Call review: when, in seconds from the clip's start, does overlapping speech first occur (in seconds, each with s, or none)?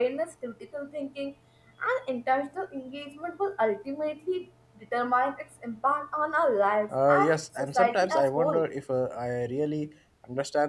6.9 s